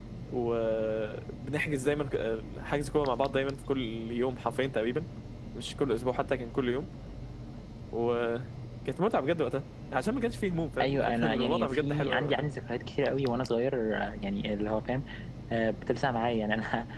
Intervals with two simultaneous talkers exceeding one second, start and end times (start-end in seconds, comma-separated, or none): 10.8-12.5